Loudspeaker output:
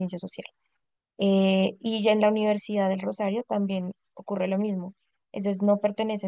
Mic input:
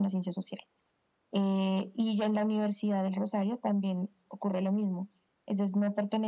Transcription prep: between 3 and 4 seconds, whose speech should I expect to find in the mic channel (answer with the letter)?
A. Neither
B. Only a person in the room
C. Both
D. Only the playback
D